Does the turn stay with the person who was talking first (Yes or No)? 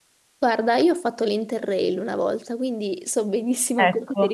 Yes